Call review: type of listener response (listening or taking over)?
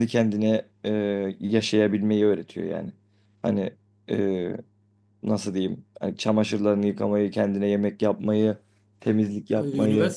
taking over